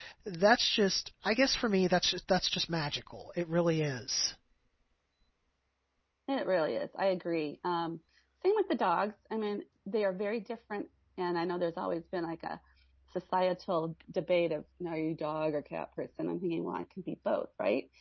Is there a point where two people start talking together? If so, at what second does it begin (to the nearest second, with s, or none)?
none